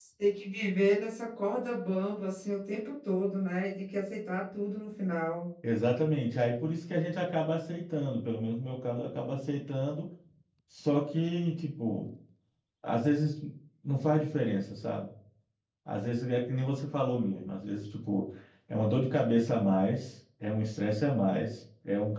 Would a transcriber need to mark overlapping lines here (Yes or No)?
No